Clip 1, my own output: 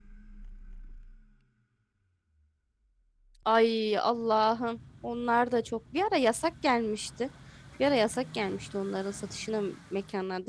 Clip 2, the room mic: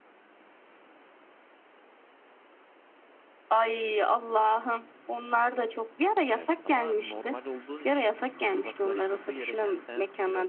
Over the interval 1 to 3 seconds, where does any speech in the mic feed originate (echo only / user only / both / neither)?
neither